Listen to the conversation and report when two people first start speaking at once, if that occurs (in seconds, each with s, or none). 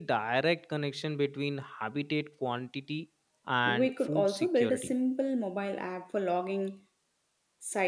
3.6 s